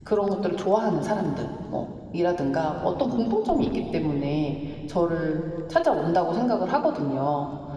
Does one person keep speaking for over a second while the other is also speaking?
No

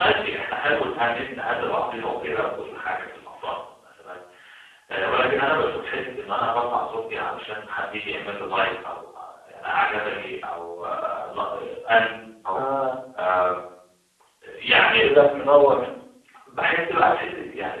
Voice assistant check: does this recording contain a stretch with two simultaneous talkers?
No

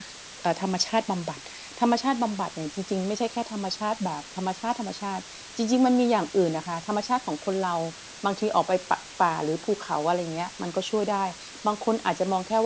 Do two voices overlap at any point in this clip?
No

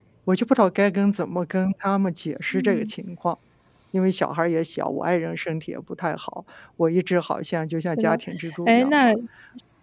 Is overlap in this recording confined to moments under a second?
Yes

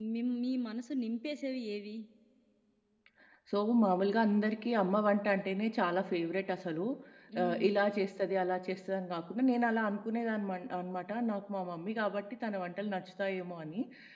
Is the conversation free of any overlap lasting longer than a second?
Yes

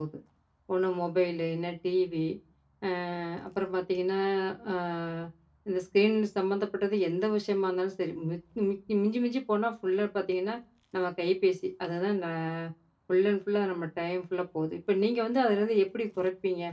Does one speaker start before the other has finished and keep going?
No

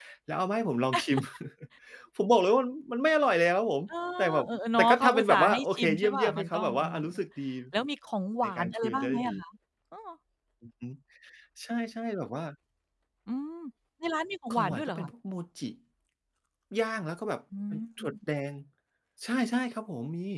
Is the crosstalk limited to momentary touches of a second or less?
No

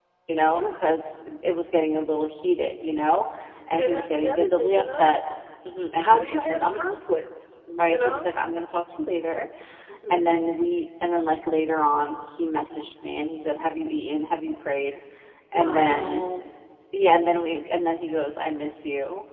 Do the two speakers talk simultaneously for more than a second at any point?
Yes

